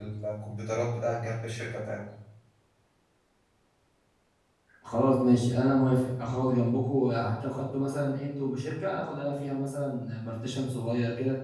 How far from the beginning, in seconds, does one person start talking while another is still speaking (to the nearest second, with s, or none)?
none